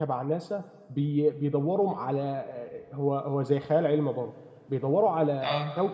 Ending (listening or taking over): listening